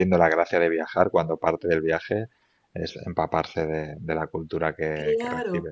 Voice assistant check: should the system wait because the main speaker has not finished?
No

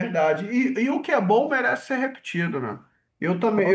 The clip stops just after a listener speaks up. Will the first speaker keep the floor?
Yes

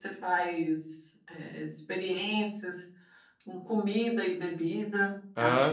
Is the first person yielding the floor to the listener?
No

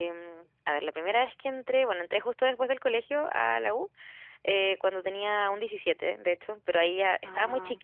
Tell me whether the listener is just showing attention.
Yes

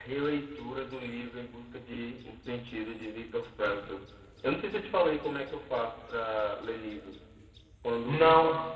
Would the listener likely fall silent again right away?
Yes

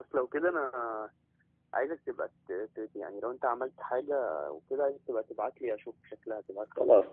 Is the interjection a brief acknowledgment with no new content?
No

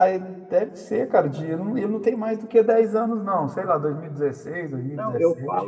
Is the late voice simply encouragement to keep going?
No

